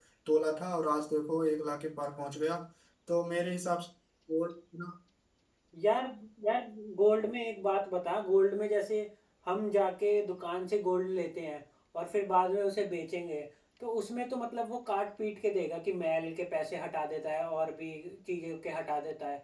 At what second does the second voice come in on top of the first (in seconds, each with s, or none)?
none